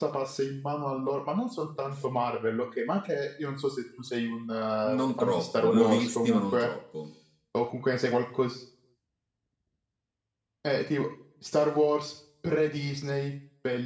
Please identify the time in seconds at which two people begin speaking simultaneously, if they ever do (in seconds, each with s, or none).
4.8 s